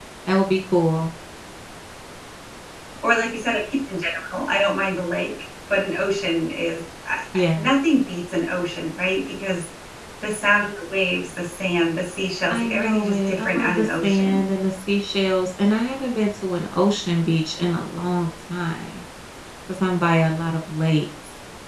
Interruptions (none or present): present